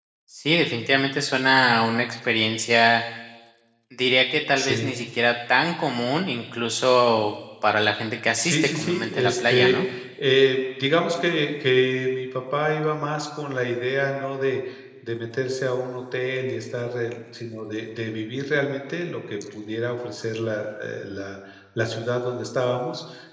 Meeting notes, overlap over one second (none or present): present